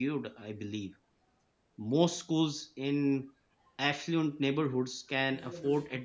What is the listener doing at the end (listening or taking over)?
listening